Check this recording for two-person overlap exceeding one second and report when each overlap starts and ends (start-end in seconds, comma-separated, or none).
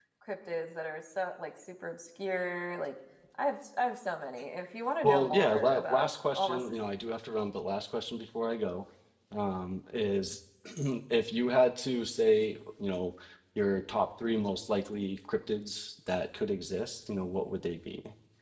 5.0-6.6